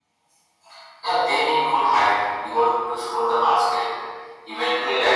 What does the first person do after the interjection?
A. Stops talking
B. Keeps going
B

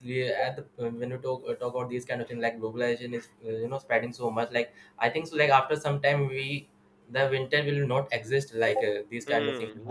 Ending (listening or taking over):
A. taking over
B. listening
A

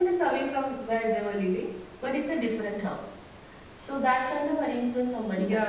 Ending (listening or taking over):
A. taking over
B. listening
A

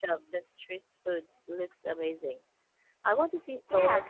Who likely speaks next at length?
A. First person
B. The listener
B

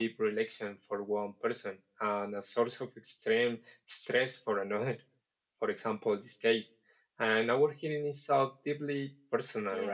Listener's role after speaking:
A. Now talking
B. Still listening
A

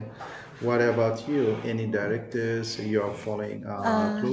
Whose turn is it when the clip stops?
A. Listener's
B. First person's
A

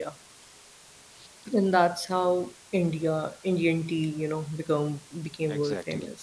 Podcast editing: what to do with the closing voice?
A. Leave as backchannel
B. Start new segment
B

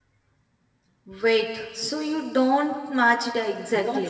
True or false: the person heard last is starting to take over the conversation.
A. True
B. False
A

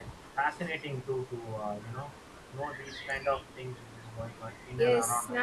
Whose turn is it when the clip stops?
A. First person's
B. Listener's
B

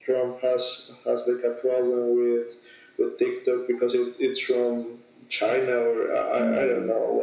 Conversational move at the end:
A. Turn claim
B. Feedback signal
A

